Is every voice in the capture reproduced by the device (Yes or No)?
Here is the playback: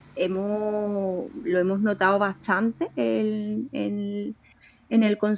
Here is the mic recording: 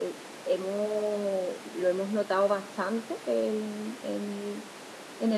Yes